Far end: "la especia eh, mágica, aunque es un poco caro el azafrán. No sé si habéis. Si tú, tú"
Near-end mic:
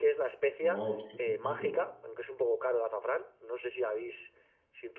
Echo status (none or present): present